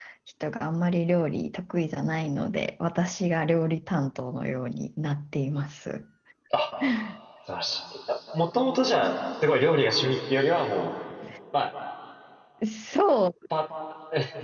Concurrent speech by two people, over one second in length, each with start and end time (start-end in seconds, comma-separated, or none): none